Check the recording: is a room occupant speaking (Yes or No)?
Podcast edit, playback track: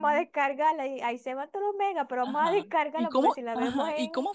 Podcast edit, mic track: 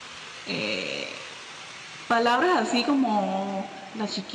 Yes